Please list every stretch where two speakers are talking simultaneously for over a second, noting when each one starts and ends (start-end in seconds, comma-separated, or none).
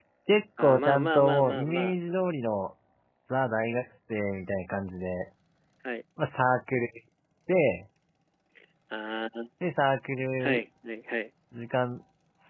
0.6-2.0